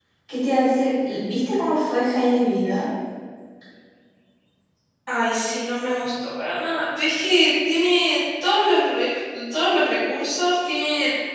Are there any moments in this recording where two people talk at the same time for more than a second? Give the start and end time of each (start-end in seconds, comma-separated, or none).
none